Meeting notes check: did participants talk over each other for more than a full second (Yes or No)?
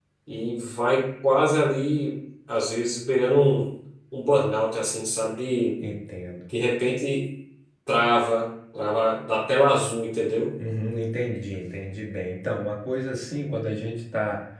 No